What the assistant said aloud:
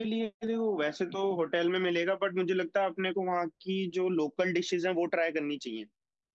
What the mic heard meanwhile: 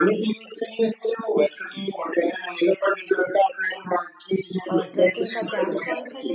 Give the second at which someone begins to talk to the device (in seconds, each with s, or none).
4.7 s